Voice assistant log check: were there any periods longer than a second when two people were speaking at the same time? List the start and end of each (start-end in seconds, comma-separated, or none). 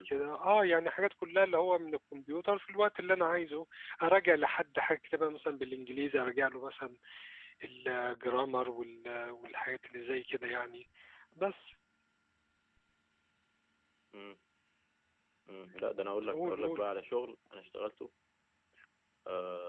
none